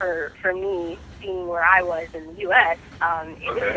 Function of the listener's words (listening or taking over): listening